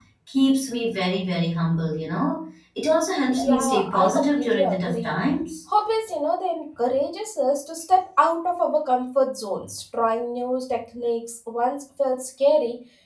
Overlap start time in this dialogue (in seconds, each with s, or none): 3.3 s